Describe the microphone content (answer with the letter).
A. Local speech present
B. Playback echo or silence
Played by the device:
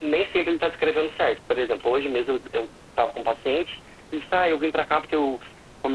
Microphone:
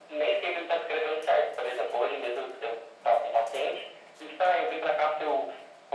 B